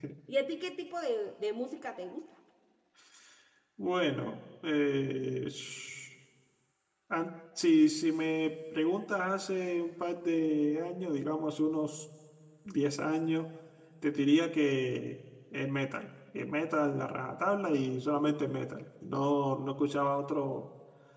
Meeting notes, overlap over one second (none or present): none